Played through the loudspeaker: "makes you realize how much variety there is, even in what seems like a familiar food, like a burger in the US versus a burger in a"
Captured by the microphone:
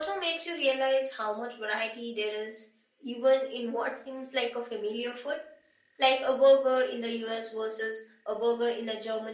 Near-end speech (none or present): none